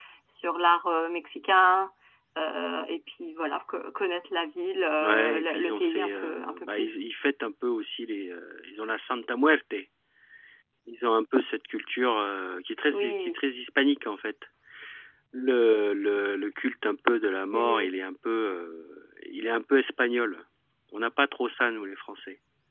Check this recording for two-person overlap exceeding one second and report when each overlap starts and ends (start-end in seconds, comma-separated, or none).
5.0-6.9